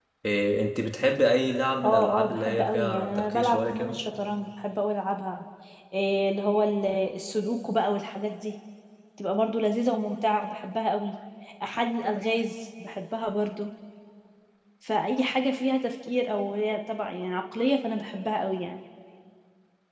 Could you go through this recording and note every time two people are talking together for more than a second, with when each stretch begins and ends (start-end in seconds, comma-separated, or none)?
1.8-4.0